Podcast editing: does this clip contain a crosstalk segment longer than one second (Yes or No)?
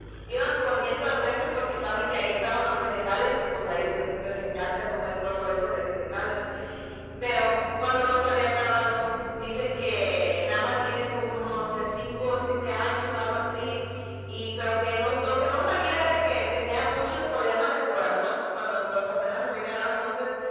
No